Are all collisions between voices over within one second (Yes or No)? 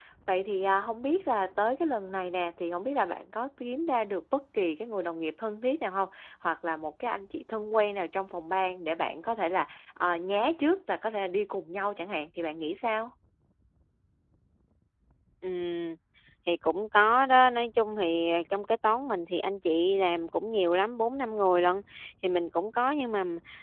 Yes